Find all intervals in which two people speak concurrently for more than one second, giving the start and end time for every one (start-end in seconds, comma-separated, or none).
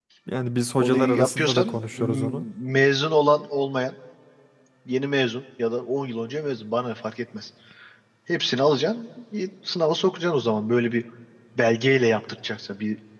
0.8-2.4